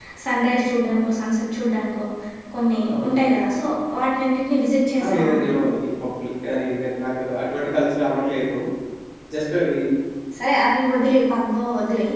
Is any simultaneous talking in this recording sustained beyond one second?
No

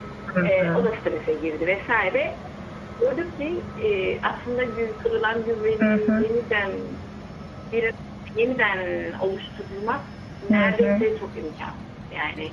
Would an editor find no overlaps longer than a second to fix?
Yes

